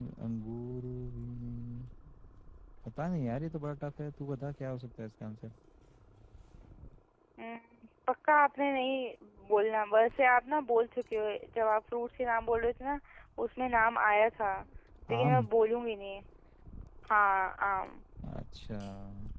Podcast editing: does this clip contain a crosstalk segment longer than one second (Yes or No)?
No